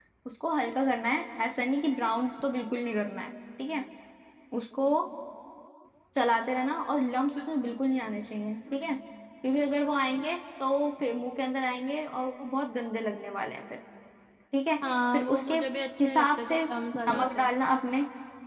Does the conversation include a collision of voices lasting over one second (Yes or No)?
Yes